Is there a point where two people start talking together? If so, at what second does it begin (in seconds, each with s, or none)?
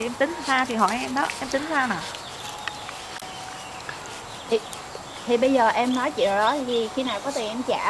none